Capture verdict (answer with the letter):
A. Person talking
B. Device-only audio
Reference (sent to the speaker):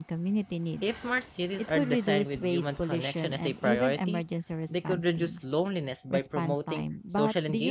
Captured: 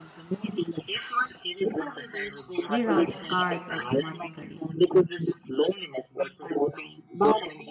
A